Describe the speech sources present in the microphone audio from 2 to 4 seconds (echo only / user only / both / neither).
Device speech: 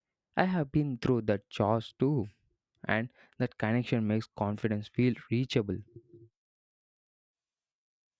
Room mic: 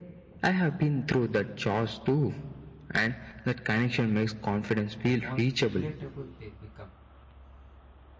echo only